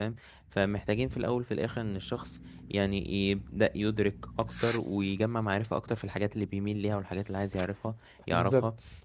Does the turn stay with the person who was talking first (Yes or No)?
Yes